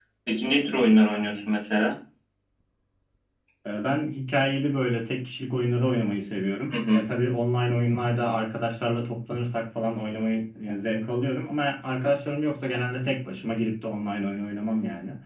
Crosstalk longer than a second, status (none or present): none